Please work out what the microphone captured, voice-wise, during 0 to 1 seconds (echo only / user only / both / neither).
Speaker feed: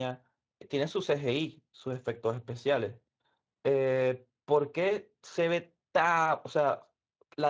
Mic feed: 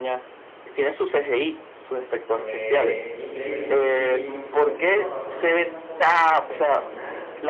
echo only